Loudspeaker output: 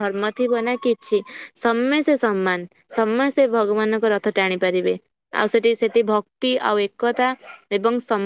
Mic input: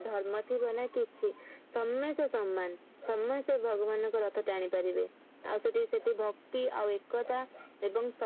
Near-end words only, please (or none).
none